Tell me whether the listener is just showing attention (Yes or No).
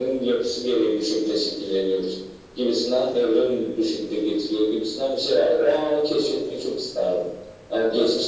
Yes